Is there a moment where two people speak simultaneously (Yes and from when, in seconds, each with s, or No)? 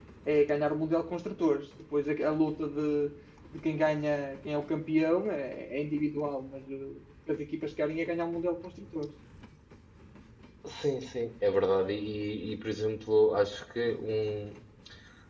No